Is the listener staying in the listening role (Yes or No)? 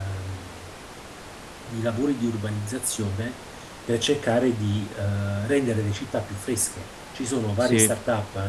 Yes